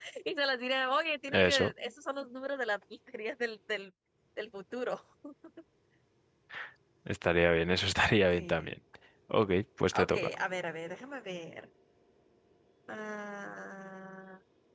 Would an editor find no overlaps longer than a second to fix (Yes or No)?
Yes